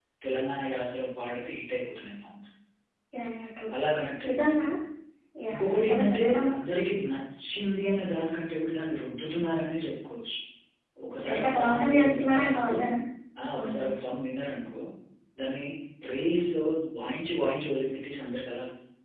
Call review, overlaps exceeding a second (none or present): present